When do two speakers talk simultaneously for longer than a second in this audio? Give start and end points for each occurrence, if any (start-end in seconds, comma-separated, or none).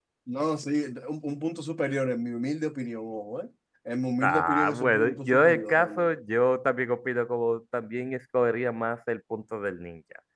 4.2-6.1